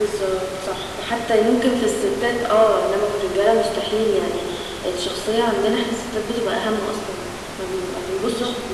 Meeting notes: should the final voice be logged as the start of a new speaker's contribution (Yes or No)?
No